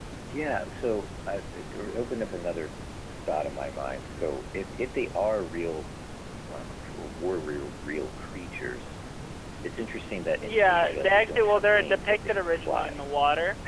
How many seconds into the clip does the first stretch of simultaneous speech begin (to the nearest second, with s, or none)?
10 s